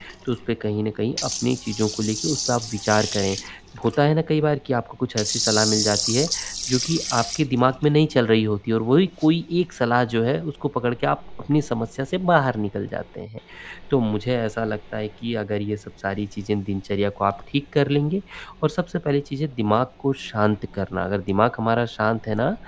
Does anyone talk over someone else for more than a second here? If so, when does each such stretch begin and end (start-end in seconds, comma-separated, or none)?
none